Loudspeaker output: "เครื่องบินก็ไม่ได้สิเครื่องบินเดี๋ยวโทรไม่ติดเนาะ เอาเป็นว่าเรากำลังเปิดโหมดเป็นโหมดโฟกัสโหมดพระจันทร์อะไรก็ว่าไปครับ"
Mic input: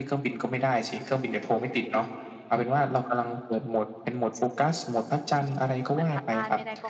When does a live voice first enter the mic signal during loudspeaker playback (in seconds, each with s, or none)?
5.9 s